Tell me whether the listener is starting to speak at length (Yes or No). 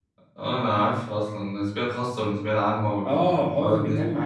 Yes